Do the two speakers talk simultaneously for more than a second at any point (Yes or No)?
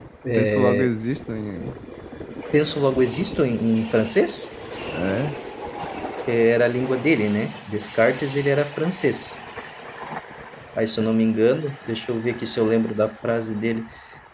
No